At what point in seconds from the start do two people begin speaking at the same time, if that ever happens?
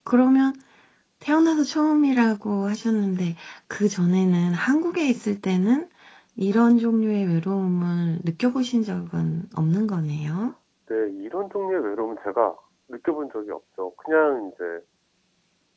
none

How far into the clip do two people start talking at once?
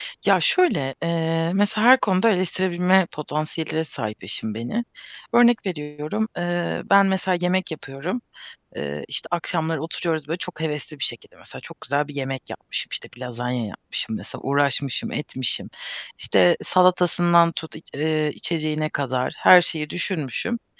none

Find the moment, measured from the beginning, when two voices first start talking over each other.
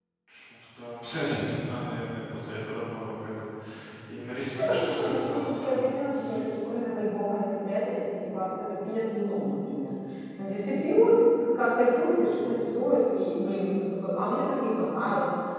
4.6 s

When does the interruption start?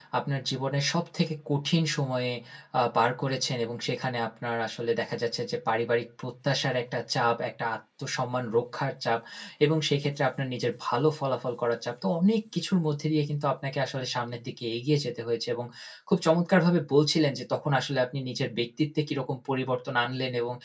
none

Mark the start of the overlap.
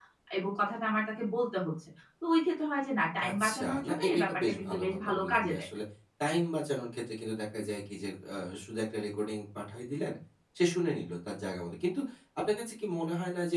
3.2 s

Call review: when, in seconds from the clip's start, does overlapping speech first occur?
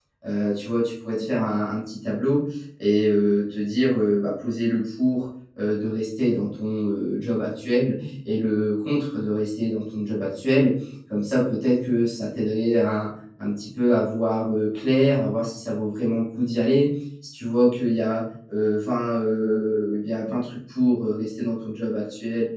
none

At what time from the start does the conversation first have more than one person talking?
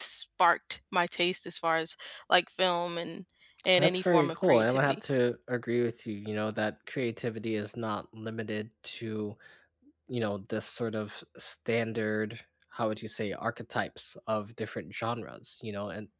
3.8 s

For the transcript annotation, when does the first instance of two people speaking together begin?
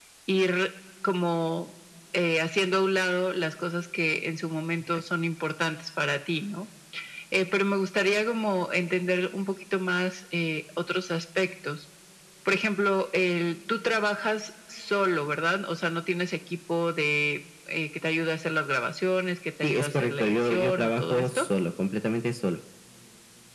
19.6 s

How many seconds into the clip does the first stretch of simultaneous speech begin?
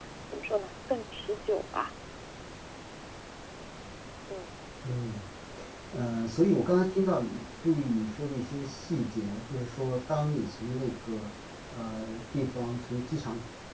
none

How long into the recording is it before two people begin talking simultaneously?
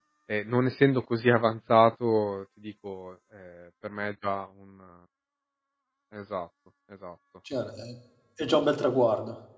none

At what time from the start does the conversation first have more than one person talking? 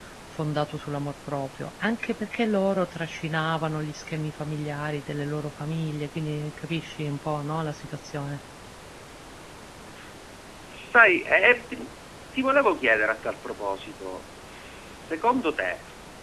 none

